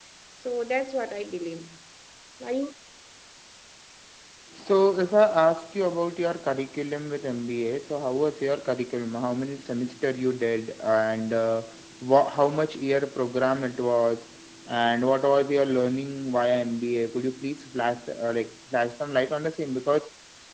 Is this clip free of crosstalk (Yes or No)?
Yes